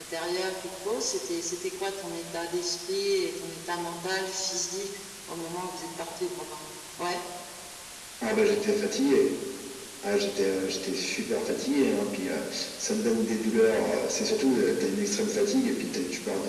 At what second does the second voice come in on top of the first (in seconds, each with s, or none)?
none